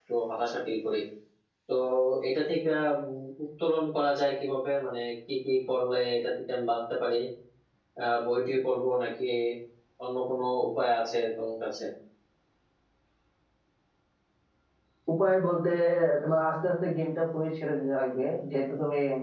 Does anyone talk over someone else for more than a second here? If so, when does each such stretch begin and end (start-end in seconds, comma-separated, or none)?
none